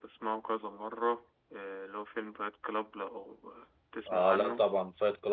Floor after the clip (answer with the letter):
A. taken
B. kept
A